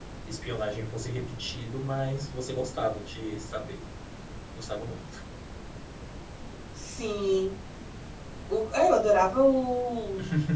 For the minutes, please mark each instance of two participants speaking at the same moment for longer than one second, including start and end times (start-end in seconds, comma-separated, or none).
none